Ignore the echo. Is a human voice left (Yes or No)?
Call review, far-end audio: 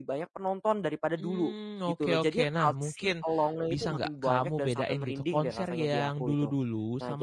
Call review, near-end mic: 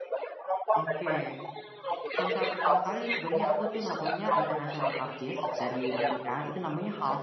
Yes